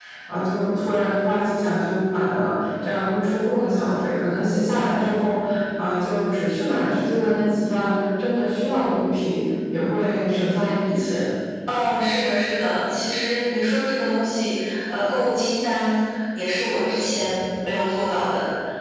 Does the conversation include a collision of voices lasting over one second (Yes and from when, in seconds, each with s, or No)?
No